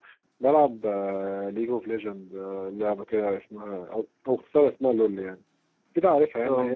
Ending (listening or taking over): listening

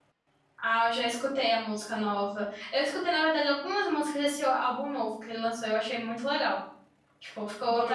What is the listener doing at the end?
listening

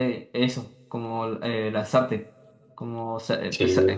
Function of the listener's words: listening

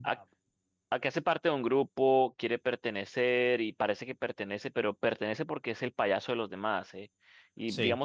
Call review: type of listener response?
listening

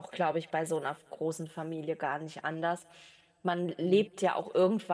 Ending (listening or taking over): listening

